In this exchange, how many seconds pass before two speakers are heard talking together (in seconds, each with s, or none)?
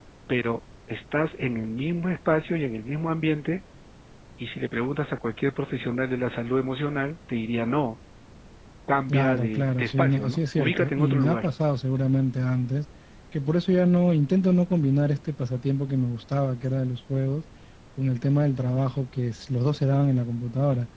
9.1 s